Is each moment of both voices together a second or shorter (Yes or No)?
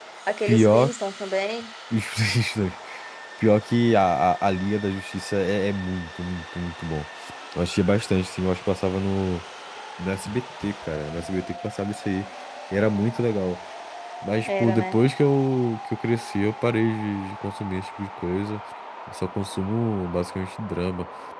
Yes